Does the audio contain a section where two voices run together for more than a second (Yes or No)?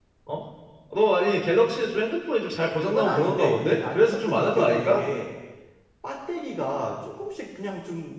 Yes